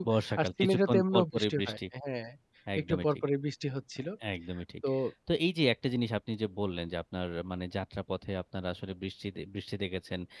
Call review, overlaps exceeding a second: present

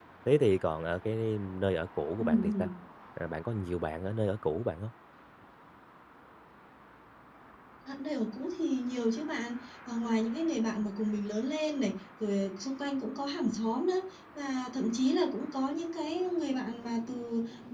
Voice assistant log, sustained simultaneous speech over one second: none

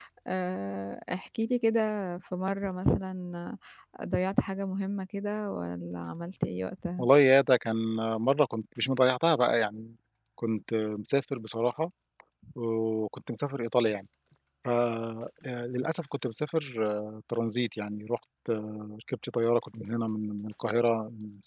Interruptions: none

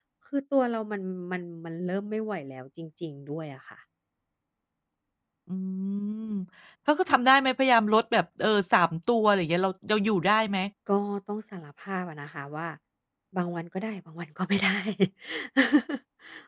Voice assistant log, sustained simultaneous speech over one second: none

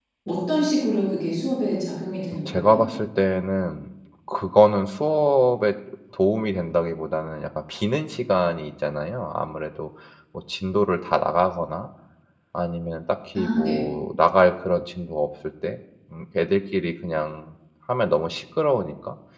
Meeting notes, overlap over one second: none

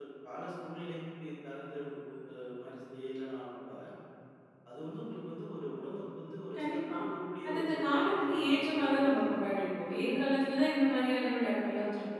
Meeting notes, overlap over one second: present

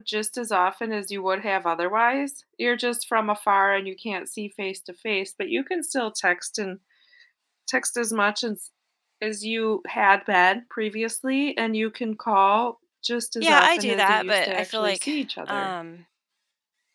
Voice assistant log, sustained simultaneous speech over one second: present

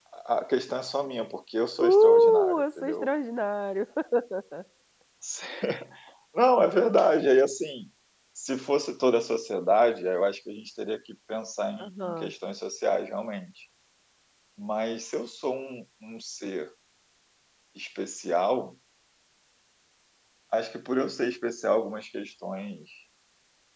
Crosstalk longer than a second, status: present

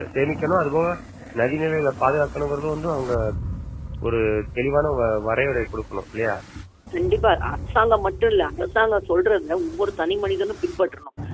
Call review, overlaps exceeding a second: none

